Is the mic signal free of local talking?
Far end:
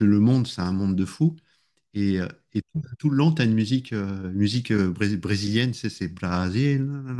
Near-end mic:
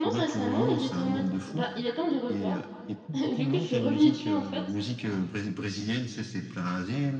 No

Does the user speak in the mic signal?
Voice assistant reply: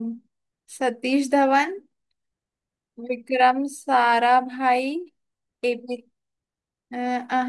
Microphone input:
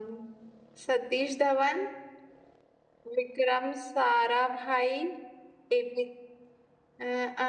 No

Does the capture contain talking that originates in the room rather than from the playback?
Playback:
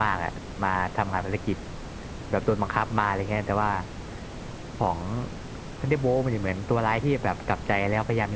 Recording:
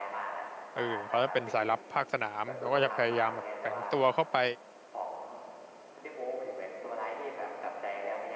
Yes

